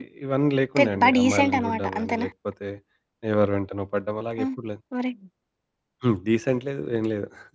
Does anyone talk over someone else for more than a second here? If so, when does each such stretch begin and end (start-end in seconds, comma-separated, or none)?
0.8-2.3